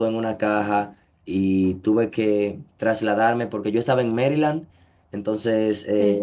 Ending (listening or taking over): listening